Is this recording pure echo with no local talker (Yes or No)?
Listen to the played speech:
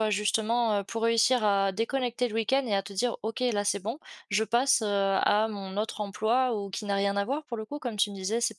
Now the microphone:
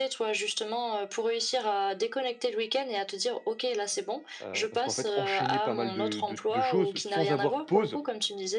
No